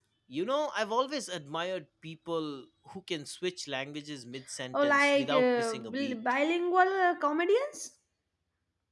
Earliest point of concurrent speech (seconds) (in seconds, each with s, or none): 4.7 s